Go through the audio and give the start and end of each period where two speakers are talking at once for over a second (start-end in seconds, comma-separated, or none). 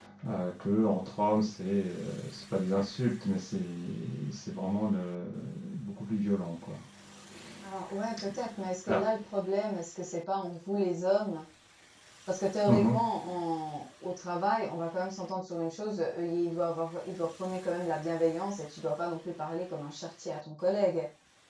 none